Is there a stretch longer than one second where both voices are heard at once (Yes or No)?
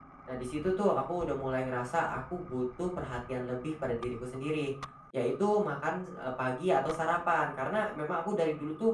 No